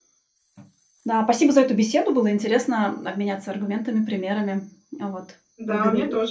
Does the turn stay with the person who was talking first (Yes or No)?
No